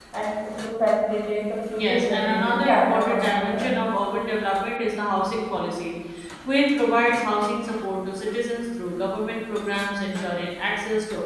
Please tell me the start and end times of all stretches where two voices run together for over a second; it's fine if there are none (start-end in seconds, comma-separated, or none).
1.8-3.7